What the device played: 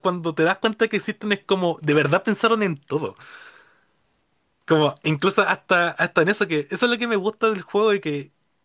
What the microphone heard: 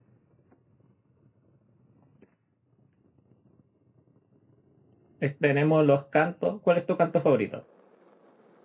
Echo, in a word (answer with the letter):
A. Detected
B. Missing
B